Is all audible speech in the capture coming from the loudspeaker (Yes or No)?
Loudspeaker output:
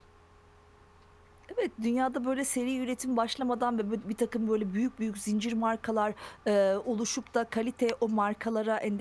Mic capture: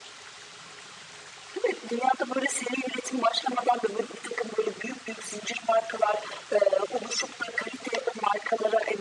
Yes